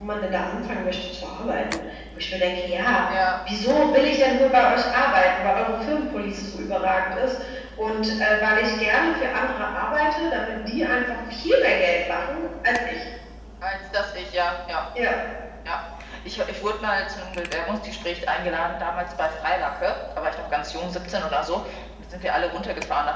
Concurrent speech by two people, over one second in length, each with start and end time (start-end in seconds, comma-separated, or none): none